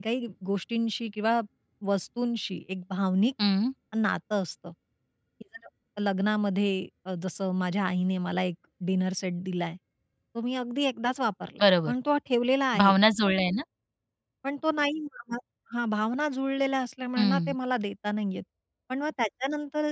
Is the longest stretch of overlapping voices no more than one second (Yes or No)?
Yes